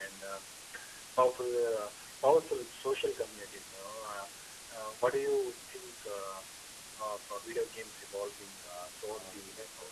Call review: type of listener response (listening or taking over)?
taking over